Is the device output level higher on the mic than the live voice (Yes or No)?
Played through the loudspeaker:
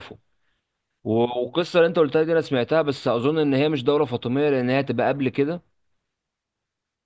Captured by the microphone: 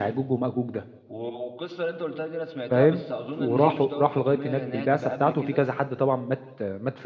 No